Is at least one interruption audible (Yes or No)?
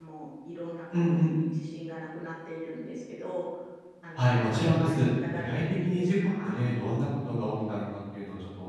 Yes